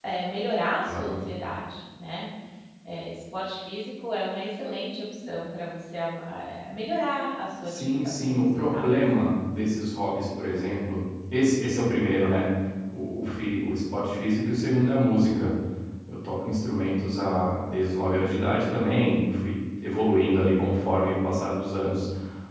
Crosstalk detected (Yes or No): Yes